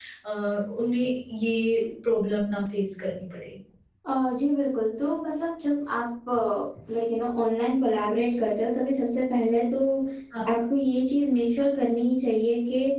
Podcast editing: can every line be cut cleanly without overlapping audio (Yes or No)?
Yes